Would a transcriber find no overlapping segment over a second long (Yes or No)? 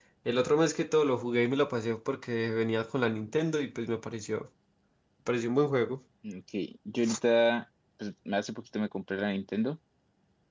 Yes